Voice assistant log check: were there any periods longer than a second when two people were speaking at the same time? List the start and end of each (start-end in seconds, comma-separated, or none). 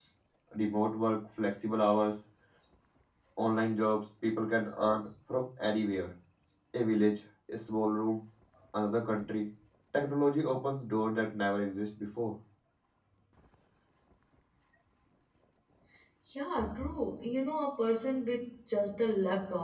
none